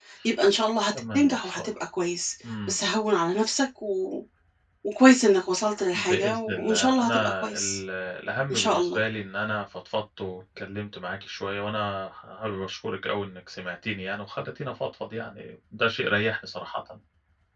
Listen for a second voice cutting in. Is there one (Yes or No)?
Yes